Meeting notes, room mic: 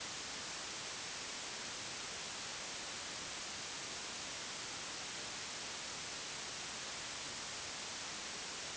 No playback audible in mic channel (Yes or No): Yes